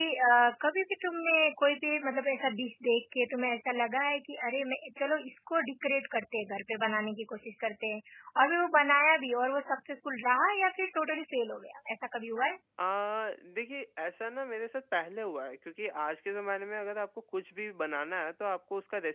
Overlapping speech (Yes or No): No